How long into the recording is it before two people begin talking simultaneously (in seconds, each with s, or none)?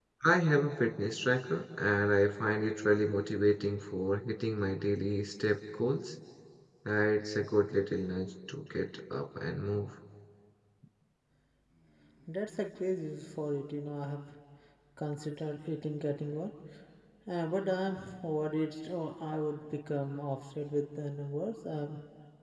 none